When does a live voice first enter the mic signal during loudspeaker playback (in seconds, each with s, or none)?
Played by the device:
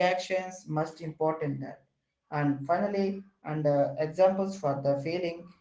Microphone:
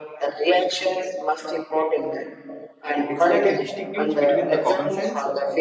3.1 s